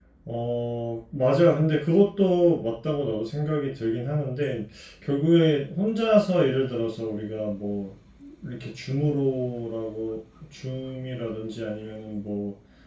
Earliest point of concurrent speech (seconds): none

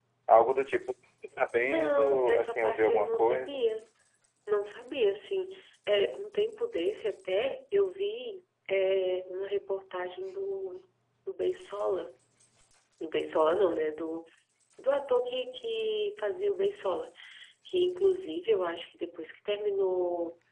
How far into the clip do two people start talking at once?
2 s

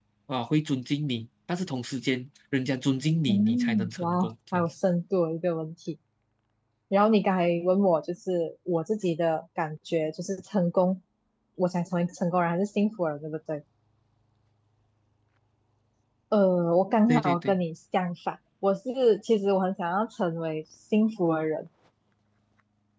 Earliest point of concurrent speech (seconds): 3 s

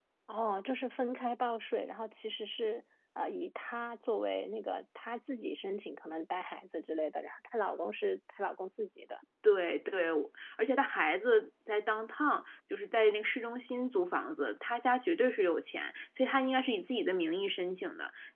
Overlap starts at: none

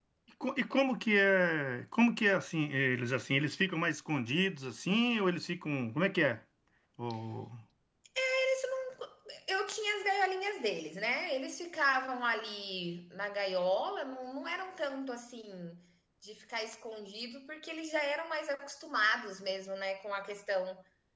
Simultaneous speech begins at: none

